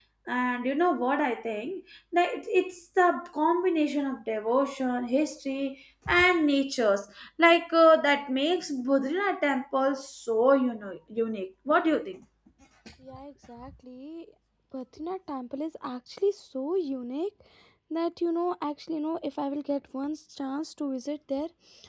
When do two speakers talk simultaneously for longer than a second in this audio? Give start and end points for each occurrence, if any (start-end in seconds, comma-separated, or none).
none